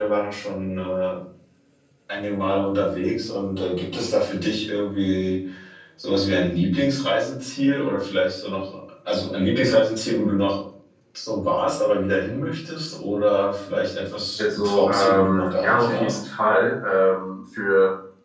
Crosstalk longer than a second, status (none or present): present